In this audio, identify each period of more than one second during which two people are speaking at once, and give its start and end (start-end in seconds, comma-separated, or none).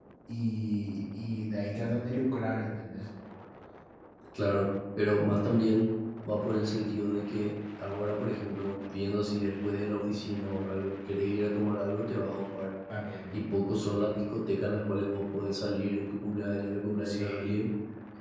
none